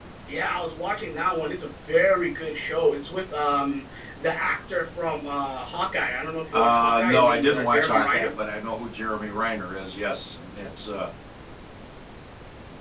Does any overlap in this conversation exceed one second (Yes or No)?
Yes